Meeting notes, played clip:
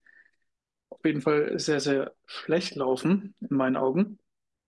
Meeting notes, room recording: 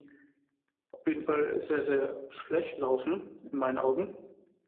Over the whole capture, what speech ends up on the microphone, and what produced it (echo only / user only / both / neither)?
echo only